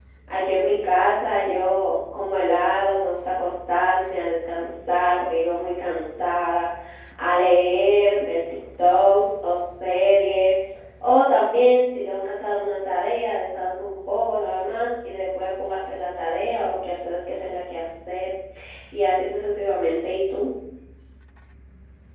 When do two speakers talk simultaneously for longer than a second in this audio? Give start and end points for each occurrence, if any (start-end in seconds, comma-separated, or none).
none